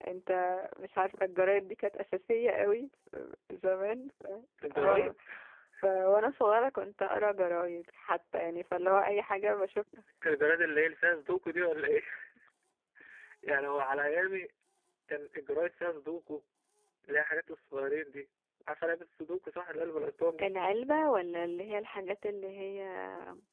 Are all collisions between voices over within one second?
Yes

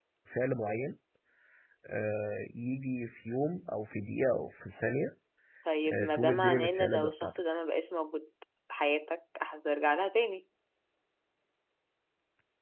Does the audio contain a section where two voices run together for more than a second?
Yes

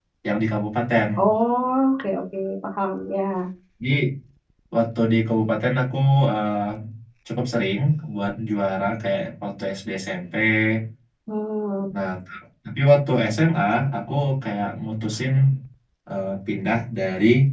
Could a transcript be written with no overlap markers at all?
Yes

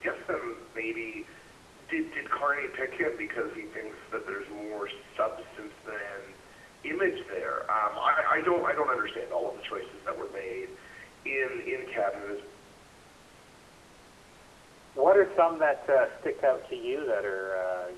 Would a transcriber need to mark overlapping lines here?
No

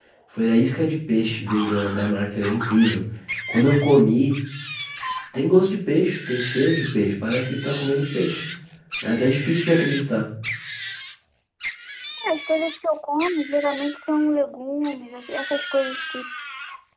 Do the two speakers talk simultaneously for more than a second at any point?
No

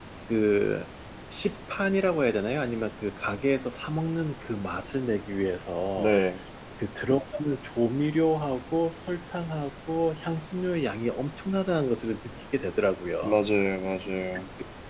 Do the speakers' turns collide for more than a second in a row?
No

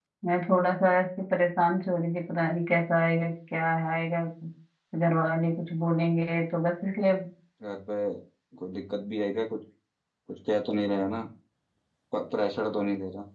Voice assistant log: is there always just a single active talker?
Yes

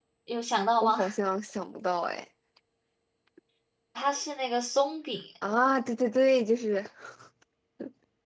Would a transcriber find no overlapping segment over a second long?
Yes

